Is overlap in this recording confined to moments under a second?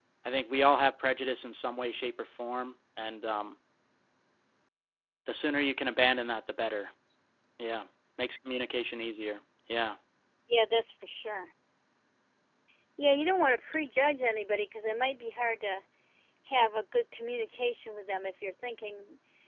Yes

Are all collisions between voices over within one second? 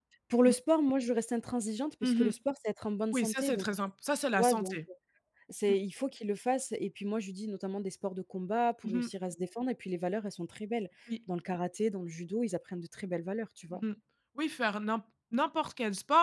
Yes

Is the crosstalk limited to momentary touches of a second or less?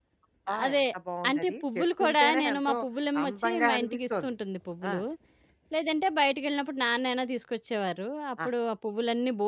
No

